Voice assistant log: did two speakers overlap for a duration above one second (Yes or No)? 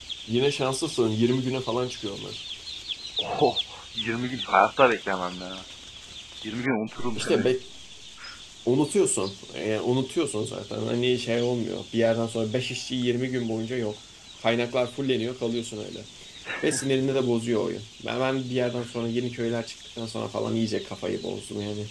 No